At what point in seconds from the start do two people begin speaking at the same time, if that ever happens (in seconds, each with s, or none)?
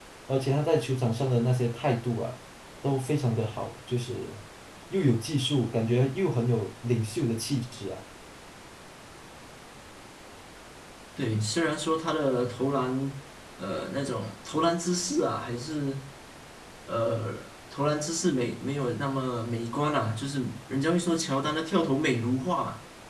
none